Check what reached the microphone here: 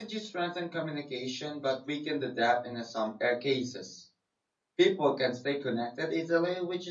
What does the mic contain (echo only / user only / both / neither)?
user only